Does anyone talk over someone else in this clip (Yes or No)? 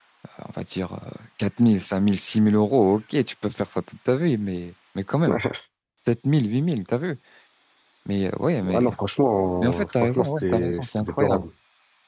Yes